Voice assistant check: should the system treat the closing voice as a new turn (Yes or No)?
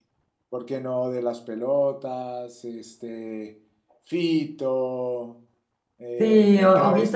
Yes